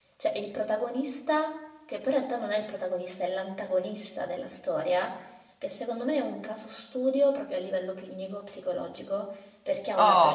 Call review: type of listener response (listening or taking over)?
listening